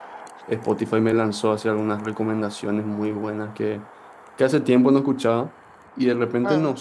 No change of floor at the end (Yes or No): Yes